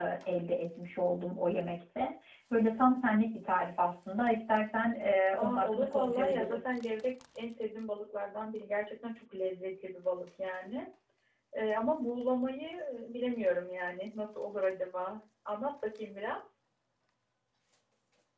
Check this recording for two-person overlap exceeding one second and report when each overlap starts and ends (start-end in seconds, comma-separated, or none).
5.4-6.6